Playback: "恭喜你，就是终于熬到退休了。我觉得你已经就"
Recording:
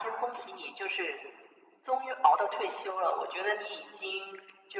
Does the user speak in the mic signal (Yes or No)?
No